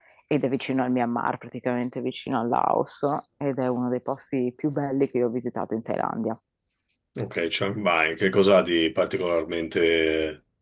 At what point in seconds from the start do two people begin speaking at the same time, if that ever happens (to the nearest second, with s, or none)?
none